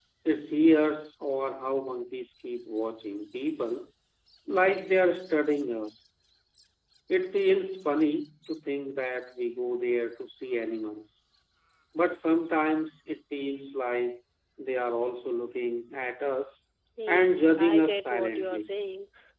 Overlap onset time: 17.1 s

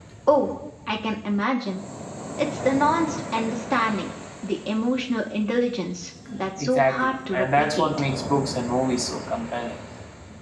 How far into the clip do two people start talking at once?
6.6 s

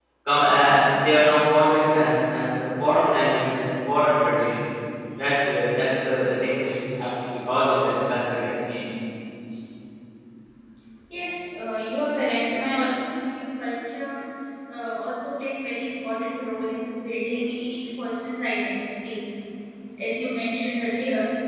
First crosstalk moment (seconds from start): none

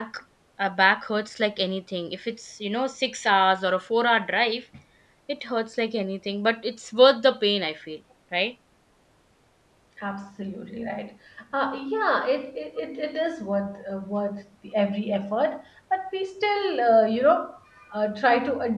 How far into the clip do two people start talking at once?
none

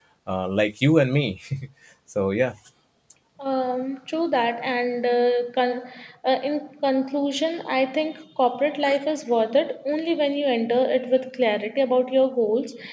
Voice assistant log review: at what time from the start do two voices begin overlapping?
none

